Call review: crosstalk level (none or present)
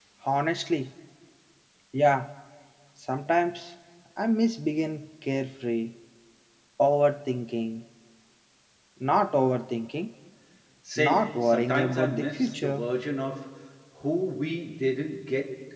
present